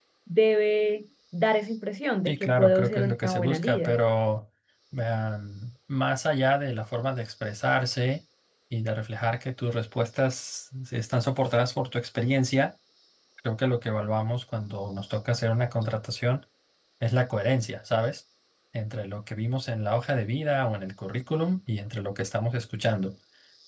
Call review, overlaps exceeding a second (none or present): present